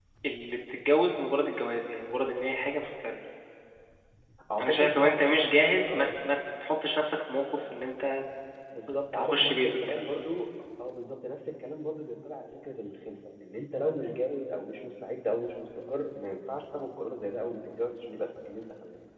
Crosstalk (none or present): present